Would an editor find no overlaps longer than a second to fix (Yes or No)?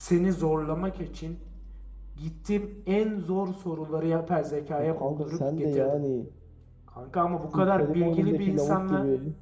No